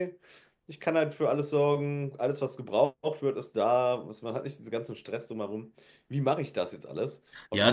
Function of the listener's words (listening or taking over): taking over